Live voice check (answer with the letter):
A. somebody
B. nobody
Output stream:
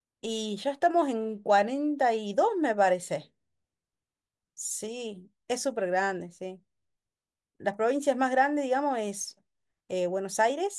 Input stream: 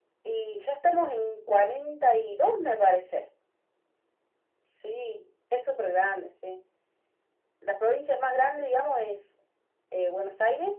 B